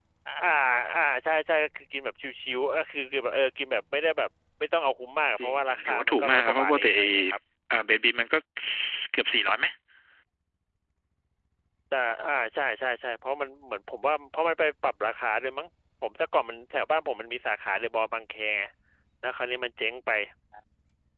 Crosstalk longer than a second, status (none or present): present